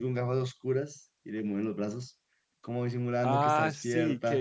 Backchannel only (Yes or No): No